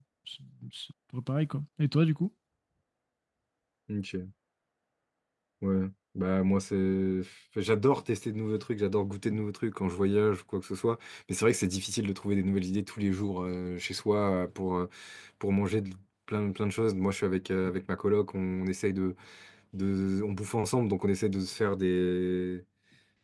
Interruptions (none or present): none